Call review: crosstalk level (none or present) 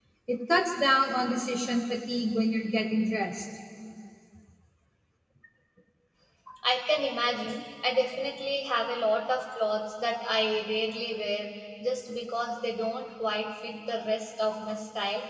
none